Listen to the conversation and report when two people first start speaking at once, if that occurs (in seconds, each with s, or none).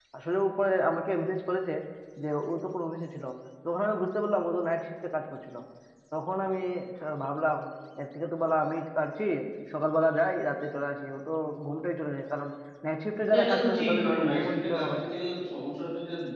13.3 s